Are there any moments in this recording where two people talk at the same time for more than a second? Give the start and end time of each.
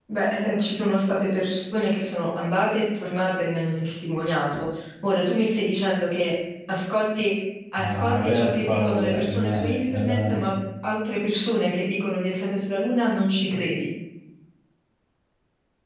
7.8-10.5

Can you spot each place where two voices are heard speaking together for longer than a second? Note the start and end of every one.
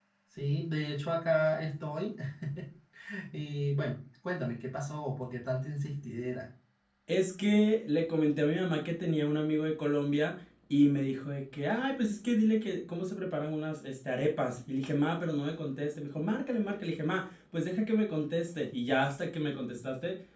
none

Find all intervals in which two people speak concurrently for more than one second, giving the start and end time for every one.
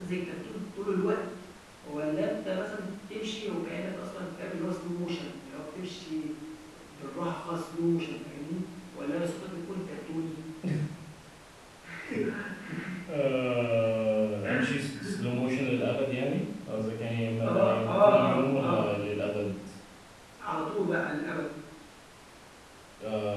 17.4-18.9

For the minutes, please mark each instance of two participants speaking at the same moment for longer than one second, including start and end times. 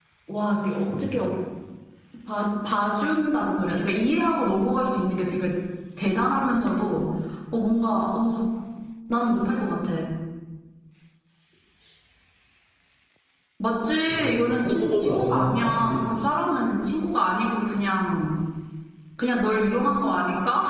14.1-16.0

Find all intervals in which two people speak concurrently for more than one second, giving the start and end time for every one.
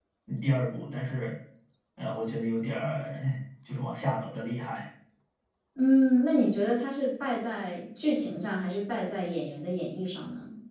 none

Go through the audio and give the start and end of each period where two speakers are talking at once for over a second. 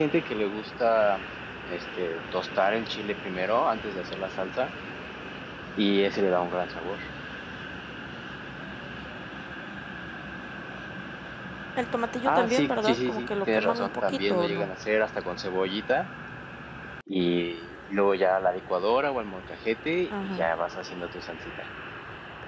12.2-14.7

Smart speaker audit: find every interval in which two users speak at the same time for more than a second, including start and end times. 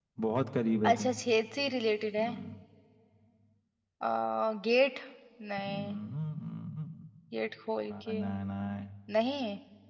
none

